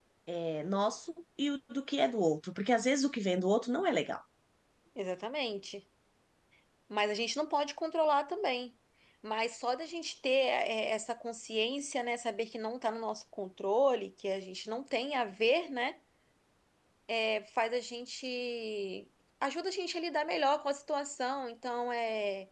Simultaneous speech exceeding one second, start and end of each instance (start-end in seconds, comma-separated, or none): none